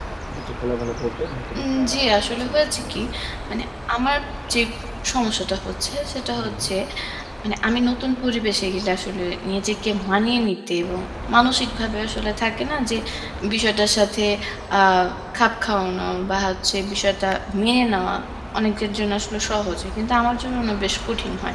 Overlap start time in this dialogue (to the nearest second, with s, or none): 2 s